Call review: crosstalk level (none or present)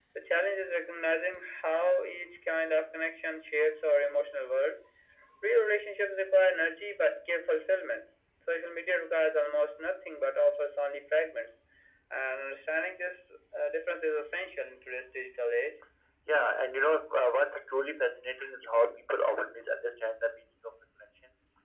none